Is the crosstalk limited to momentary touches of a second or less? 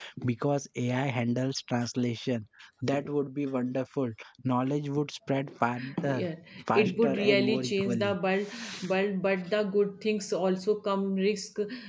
No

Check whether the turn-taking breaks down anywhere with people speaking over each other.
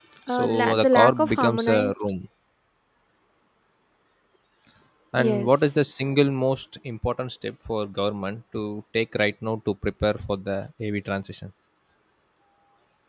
Yes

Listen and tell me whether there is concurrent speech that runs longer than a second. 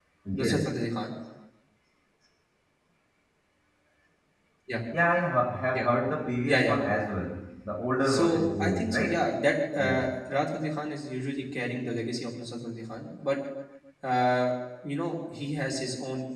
Yes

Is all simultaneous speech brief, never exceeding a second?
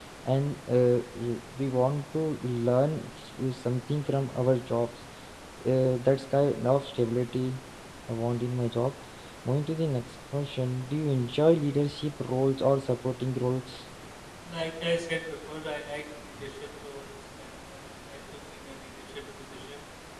Yes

